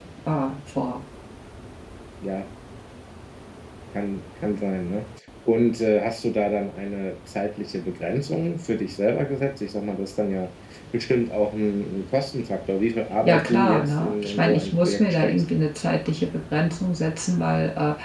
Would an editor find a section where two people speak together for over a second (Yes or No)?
Yes